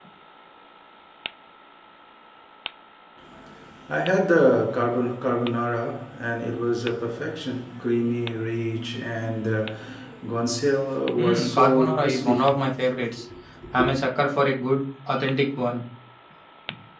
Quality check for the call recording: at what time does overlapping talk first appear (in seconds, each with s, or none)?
11.2 s